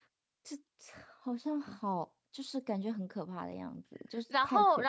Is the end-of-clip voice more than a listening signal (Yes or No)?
Yes